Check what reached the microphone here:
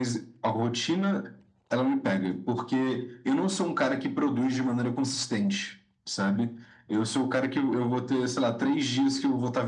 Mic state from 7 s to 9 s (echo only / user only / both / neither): echo only